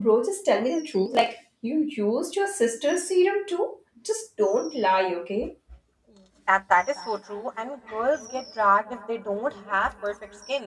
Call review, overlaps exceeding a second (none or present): none